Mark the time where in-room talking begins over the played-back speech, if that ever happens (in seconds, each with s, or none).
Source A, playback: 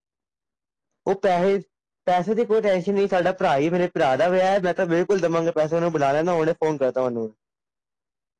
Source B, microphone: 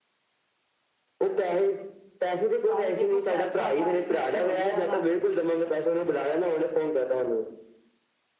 2.6 s